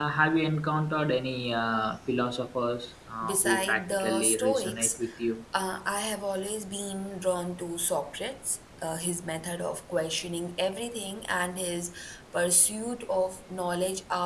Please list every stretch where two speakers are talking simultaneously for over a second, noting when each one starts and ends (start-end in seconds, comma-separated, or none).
3.2-5.0